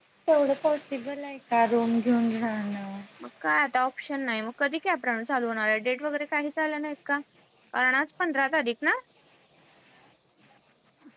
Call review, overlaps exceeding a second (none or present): none